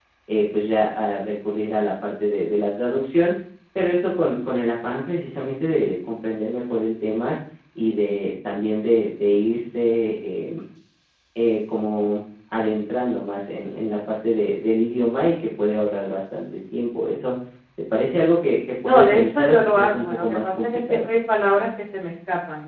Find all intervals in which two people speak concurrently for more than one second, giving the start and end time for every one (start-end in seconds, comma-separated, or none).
18.8-21.1